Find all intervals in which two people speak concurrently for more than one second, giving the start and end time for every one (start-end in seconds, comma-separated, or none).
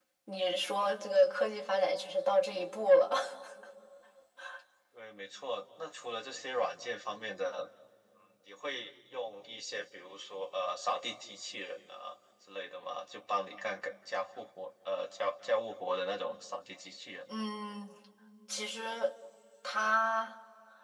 none